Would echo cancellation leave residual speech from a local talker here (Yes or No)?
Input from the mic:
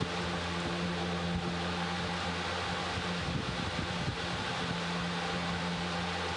No